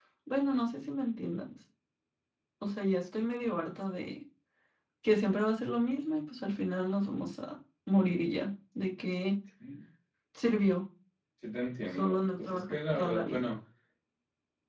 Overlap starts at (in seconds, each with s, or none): 12.0 s